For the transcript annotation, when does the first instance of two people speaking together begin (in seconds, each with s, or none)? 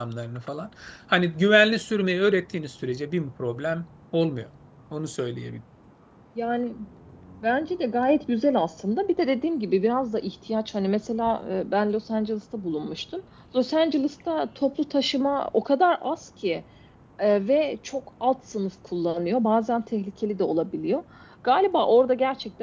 none